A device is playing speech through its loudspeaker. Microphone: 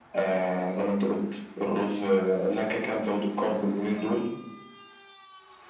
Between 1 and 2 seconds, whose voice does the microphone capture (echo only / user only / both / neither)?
echo only